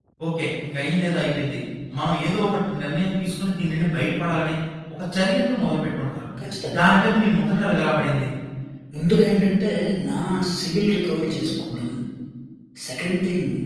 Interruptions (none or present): none